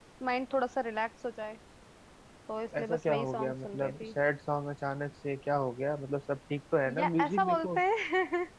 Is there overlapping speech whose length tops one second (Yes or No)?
Yes